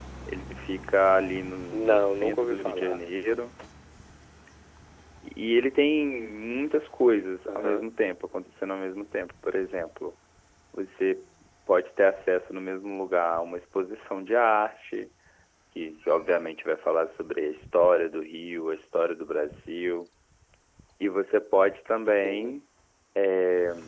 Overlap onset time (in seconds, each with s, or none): 1.7 s